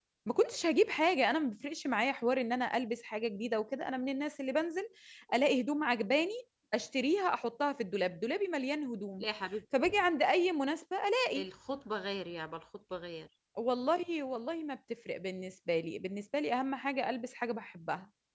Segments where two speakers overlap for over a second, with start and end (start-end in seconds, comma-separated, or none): none